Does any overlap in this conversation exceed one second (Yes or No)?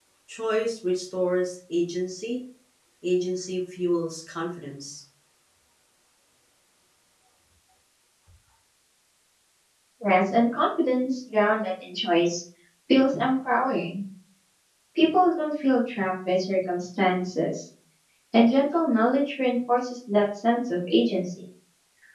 No